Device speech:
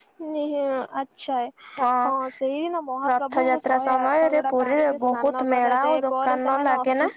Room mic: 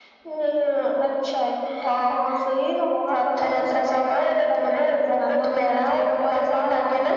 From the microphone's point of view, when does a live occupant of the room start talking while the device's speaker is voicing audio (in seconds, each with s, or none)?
none